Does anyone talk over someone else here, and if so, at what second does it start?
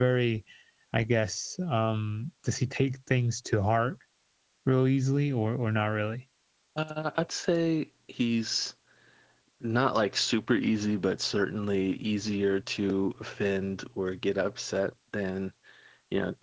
none

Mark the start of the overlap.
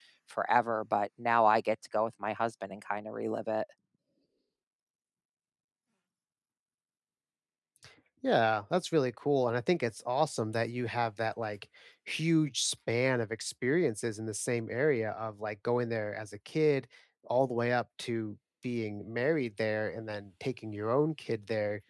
none

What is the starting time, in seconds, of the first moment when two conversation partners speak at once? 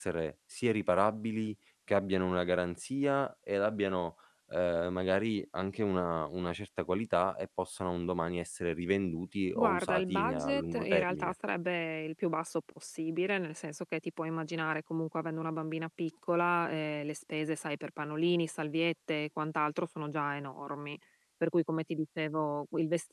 9.6 s

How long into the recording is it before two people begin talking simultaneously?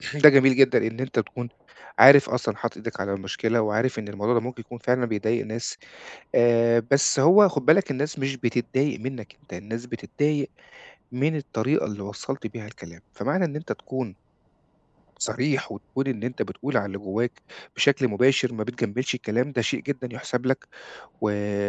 none

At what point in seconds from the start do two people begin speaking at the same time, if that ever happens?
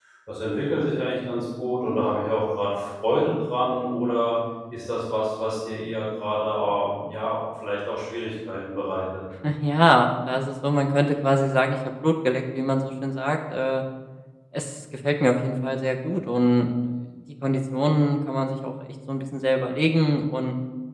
none

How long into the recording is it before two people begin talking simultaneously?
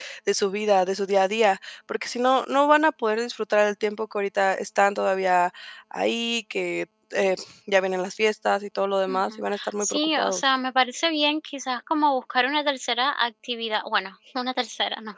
9.1 s

